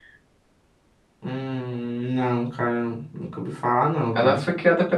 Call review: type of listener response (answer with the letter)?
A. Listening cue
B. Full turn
B